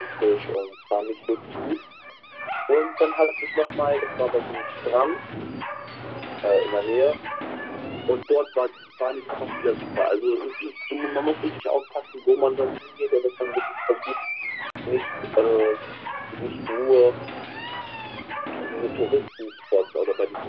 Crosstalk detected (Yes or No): No